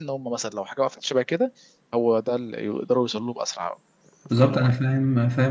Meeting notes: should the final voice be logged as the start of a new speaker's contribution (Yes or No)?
Yes